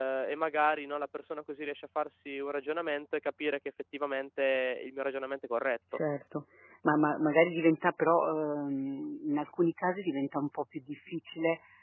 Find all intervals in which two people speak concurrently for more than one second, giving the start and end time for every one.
none

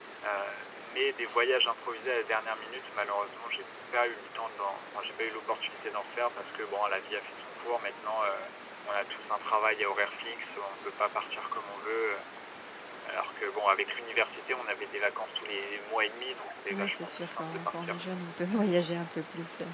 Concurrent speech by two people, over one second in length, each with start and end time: 16.7-18.0

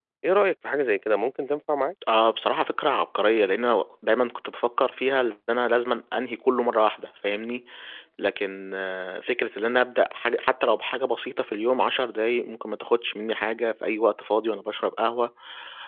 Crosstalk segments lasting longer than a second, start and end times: none

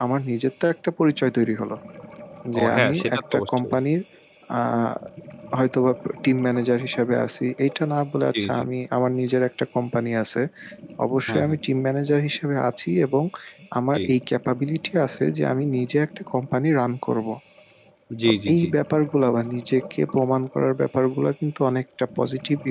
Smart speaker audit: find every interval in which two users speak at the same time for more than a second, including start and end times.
2.6-3.8

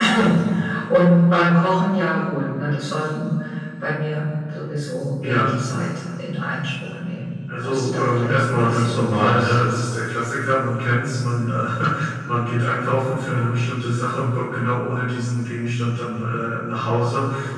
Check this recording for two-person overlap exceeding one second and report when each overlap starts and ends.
7.6-9.6

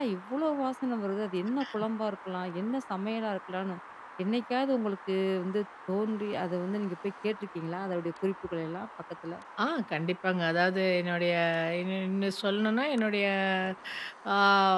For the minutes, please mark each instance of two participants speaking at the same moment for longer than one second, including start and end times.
none

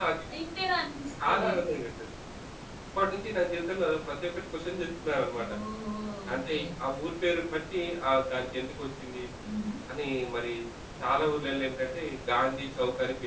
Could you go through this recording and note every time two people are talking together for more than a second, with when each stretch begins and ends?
none

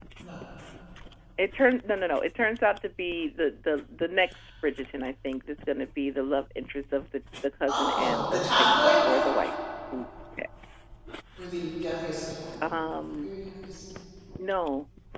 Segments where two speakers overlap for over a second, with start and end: 7.7-9.2

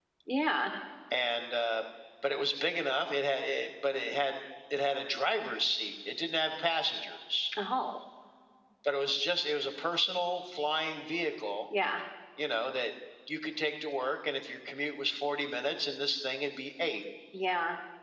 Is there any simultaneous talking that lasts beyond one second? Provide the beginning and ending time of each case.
none

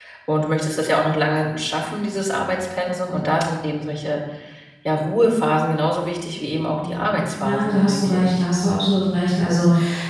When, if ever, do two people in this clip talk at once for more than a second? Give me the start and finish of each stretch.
6.7-8.4

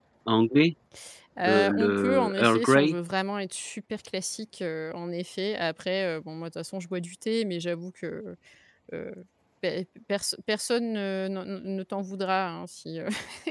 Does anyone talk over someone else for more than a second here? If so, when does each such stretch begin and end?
1.4-3.0

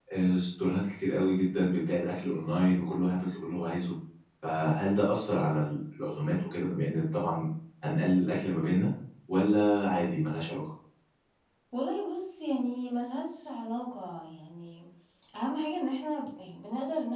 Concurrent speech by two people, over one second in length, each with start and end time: none

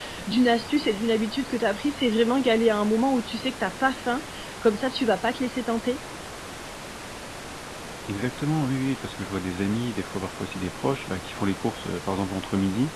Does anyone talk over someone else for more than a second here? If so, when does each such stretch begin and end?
none

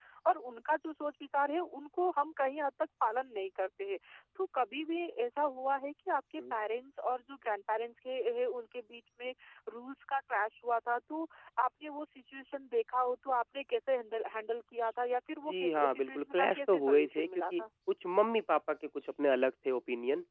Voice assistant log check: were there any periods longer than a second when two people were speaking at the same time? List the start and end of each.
15.4-17.6

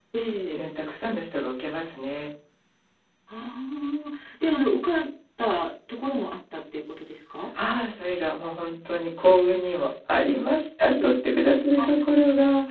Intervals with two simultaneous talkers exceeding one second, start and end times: none

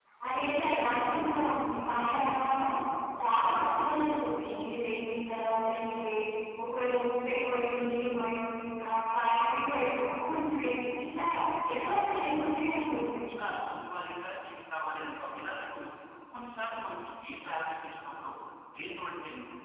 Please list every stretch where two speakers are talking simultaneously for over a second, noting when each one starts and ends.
11.7-13.2

